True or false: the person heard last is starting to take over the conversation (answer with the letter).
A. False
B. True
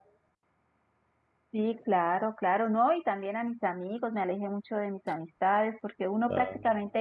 A